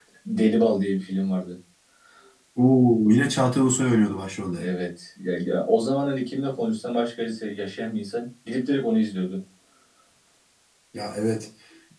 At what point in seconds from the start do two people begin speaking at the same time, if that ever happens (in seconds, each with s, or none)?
none